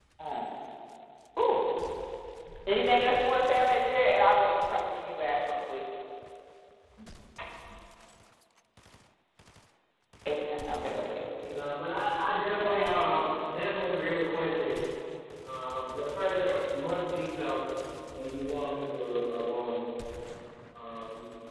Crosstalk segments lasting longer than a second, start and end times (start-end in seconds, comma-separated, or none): none